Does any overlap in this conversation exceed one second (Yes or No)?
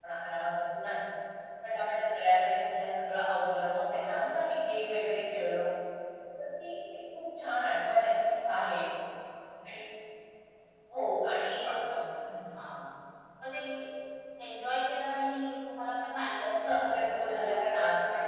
Yes